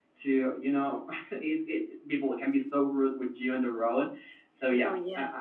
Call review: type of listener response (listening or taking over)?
listening